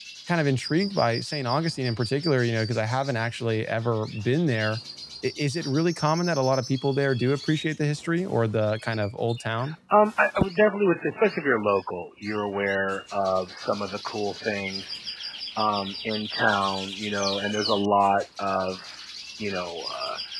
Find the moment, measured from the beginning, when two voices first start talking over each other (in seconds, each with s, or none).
none